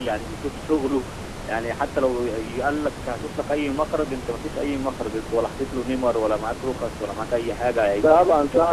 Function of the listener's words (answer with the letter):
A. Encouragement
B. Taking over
B